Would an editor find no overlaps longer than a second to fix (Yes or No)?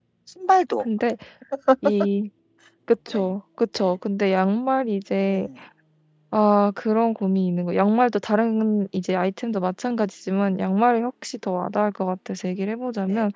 Yes